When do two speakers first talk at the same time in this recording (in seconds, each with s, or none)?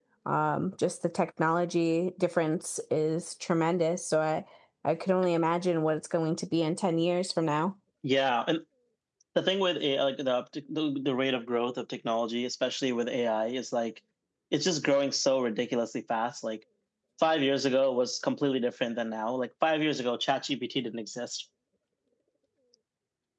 none